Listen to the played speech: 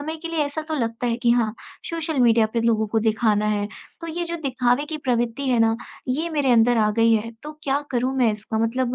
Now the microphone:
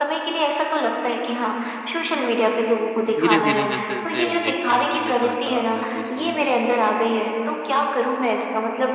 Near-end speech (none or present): present